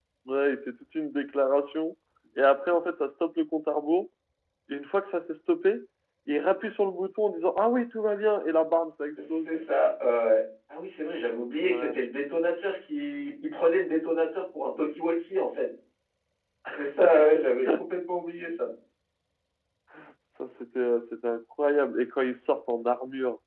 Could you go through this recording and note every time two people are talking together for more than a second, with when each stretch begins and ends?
none

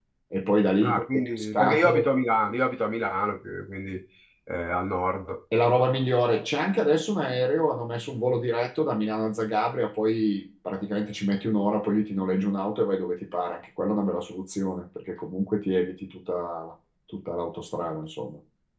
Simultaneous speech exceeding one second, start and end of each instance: 0.8-2.0

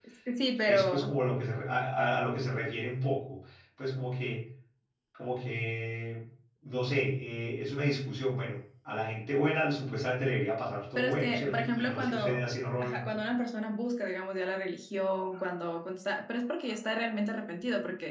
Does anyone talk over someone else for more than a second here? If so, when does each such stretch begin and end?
11.0-12.4

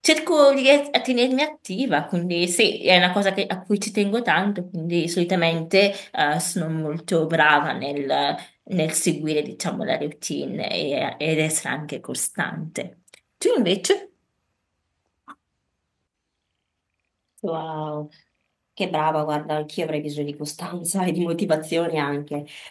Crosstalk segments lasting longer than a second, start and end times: none

